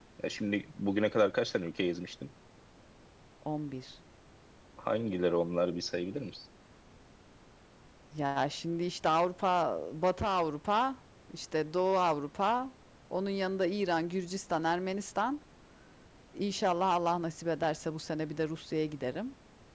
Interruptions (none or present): none